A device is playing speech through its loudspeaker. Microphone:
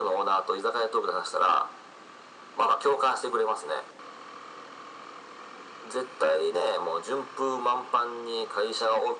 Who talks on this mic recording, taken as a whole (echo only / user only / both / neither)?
echo only